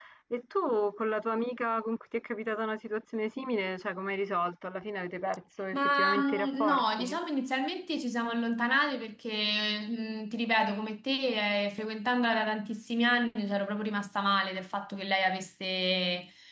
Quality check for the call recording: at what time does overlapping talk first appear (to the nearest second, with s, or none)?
6 s